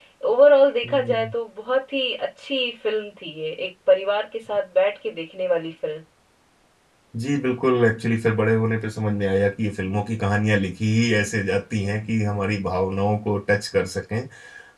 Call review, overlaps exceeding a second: none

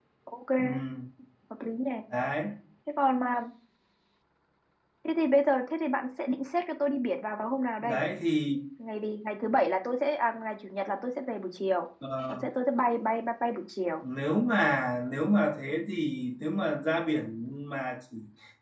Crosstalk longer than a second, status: none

